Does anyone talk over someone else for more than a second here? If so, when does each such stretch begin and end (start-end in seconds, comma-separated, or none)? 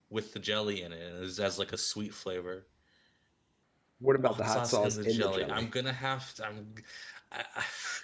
4.2-5.7